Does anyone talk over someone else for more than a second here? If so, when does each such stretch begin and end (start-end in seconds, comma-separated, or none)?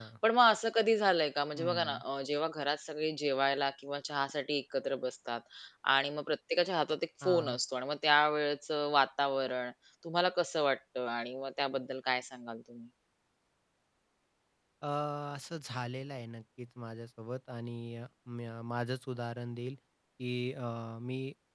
none